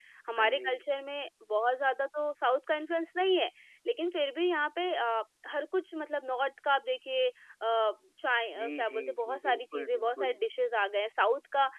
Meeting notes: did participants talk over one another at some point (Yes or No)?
Yes